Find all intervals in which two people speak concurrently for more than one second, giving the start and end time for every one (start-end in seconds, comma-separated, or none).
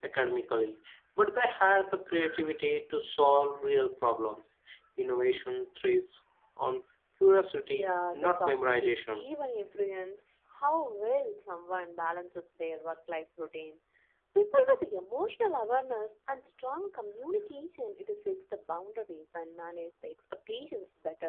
7.7-9.3